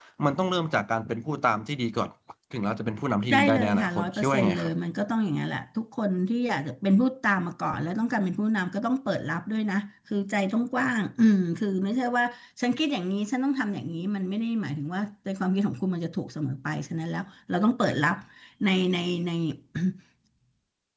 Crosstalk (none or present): present